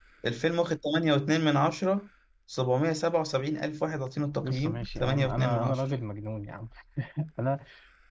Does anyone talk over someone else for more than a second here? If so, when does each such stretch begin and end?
4.4-5.8

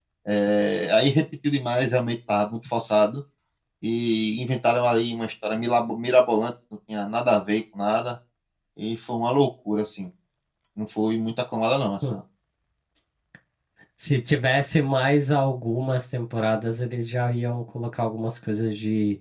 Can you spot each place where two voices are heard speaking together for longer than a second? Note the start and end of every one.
none

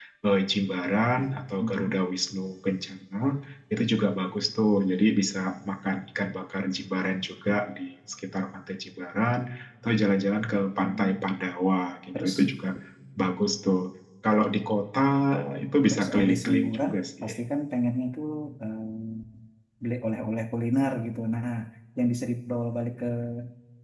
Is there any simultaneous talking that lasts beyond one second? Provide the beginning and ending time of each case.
15.9-17.3

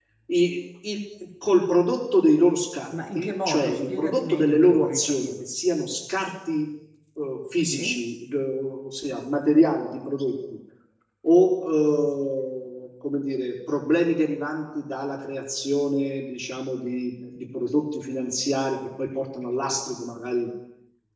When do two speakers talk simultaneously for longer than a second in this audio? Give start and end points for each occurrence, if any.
2.9-5.3

